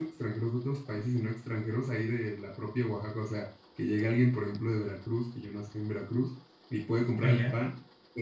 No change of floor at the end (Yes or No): Yes